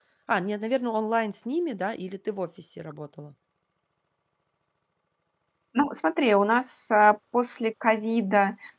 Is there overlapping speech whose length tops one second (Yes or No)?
No